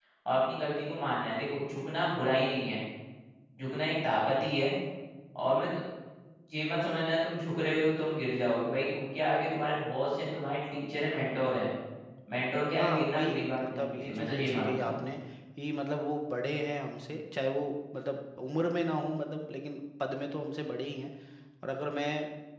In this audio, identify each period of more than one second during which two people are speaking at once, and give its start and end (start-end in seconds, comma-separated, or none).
12.7-14.9